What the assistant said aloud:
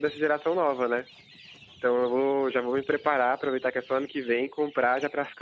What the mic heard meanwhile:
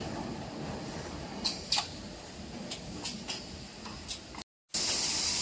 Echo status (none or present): none